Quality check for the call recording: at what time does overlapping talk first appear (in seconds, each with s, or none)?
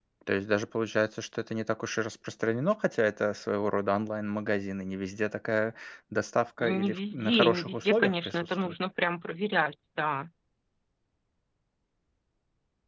6.6 s